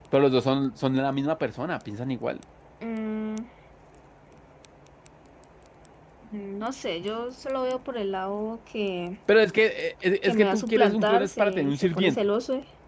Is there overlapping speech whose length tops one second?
Yes, from 10.2 s

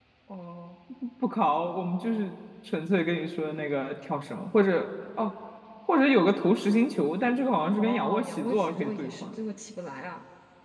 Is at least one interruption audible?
Yes, from 7.7 s

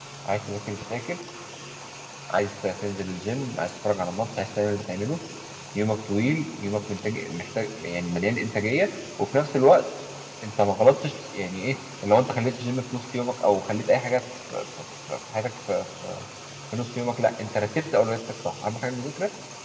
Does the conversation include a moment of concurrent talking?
No

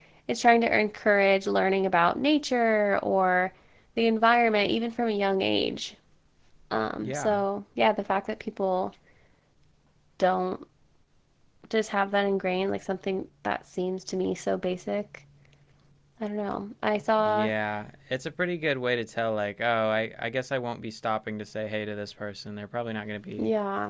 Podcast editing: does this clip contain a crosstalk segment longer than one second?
No

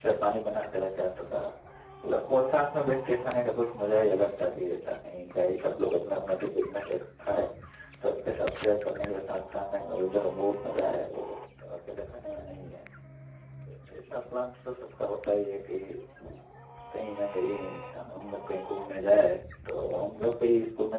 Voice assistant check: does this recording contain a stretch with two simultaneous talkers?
No

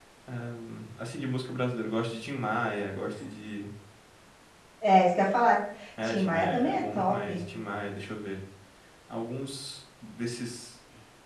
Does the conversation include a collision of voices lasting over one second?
Yes, from 6.0 s

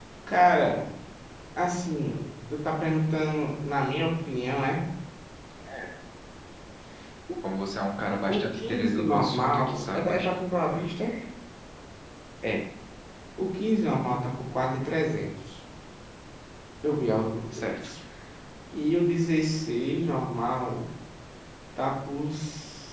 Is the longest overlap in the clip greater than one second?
Yes, from 8.3 s

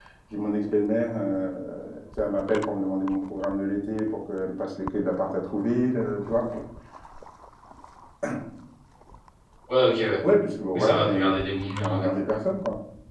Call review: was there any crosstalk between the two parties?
Yes, from 10.8 s

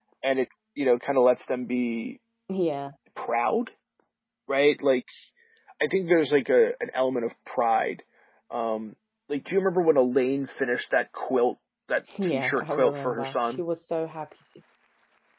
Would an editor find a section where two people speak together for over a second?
Yes, from 12.1 s

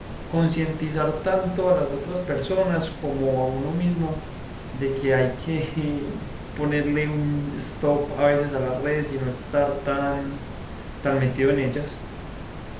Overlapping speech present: No

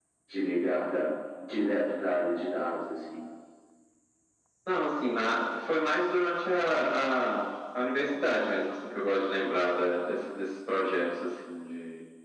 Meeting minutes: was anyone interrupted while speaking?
No

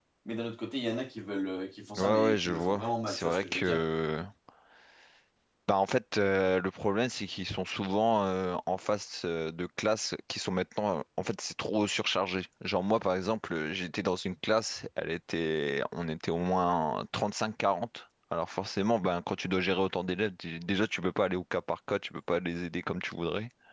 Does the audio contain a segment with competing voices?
Yes, from 2.0 s

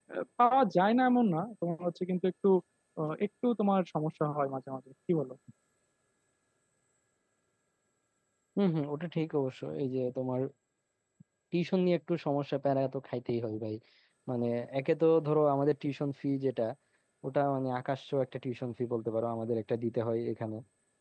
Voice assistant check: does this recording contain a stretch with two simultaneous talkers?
No

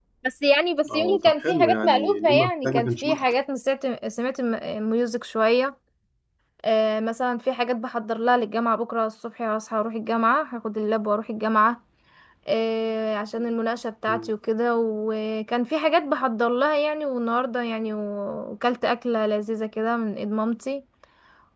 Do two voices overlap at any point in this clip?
Yes, from 0.9 s

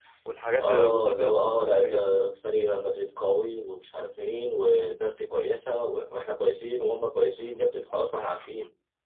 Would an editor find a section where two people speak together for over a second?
Yes, from 0.6 s

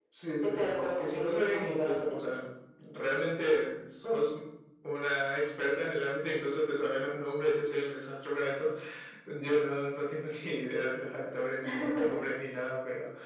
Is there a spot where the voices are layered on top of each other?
Yes, from 0.6 s

